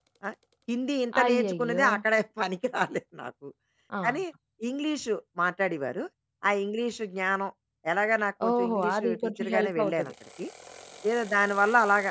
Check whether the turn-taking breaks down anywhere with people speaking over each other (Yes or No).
Yes